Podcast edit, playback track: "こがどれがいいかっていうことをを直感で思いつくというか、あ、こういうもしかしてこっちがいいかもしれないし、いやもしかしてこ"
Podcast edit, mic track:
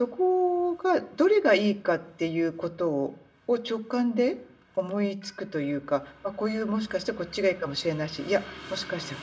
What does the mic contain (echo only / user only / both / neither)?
echo only